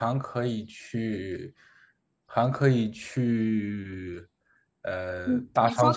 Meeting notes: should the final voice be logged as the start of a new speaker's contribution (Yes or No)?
Yes